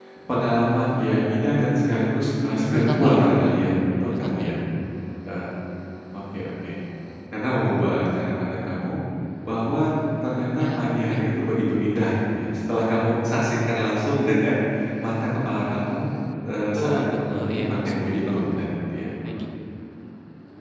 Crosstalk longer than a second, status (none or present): present